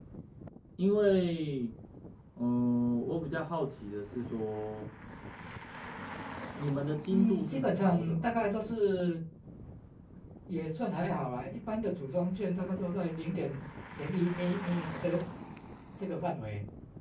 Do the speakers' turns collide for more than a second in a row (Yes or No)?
Yes